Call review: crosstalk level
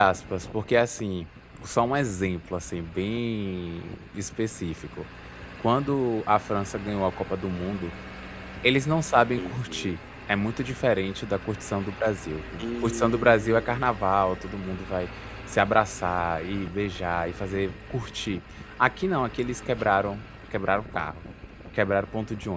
present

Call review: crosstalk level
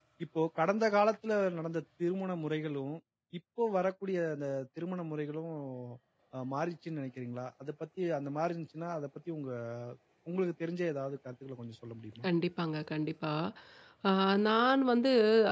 none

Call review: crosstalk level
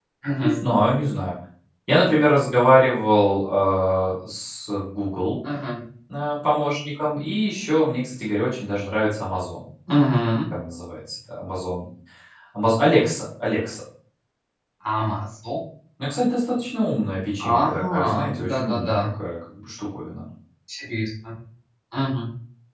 present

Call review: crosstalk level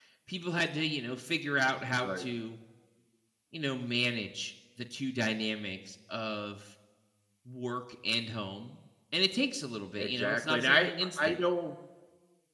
present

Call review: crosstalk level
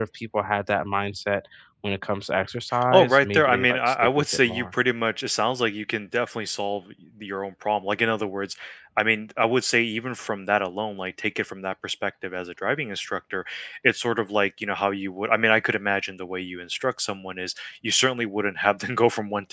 present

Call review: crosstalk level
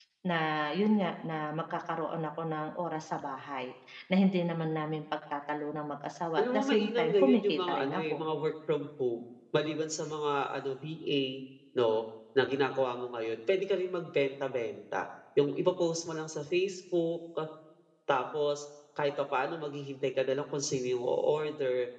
present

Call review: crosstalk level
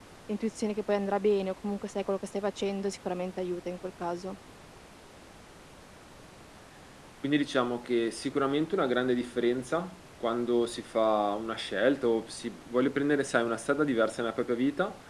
none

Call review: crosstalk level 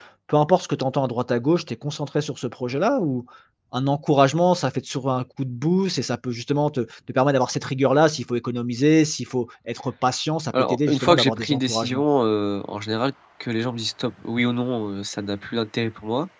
present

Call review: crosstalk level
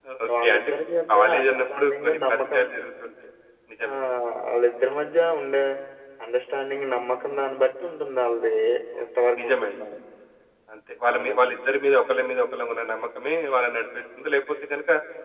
present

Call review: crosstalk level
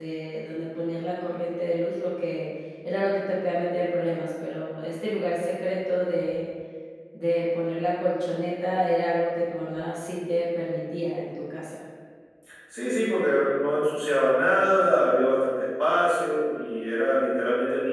none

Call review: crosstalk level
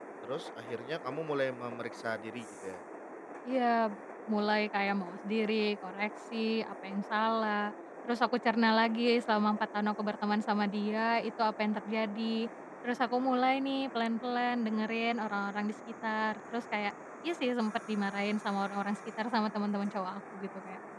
none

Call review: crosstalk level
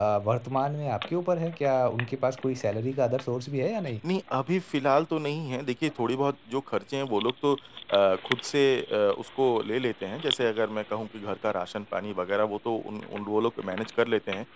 none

